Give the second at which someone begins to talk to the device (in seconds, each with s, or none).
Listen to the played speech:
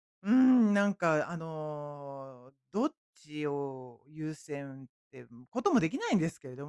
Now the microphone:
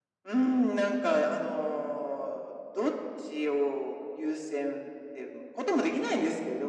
none